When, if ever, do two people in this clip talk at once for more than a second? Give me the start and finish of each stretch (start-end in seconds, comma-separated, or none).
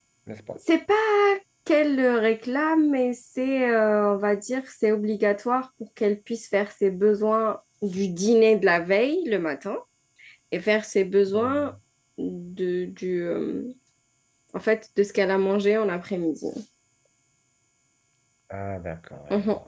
none